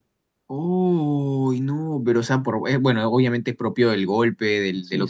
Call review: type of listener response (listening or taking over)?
listening